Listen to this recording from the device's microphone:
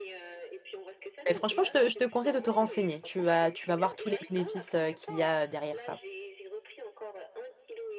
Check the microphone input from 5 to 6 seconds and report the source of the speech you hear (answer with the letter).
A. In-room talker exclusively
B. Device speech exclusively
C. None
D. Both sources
D